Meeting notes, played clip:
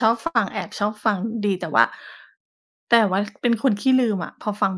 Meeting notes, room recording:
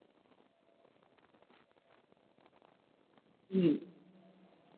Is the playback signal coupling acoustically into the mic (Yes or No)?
No